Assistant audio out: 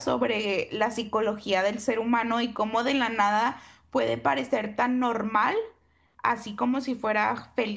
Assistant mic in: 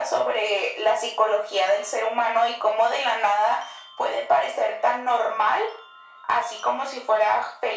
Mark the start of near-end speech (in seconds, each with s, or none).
none